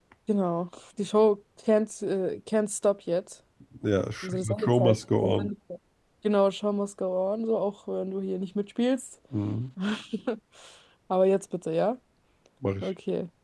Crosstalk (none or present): present